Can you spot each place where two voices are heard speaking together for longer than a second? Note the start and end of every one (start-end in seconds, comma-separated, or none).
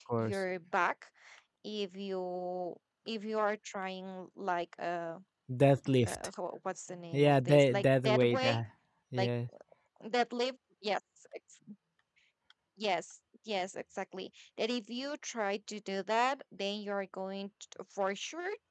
7.1-8.6